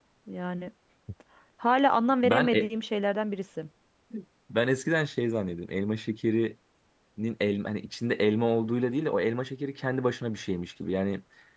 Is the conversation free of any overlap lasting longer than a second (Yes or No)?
Yes